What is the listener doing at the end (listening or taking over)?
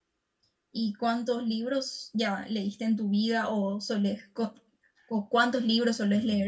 taking over